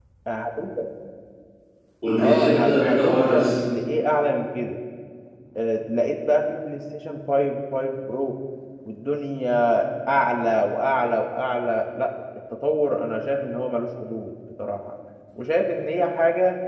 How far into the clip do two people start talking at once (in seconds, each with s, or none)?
2.2 s